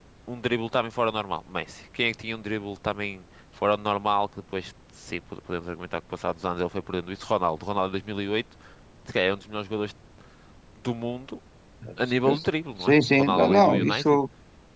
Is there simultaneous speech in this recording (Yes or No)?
Yes